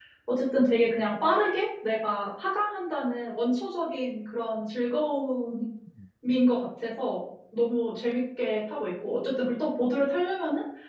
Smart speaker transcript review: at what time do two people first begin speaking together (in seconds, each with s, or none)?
none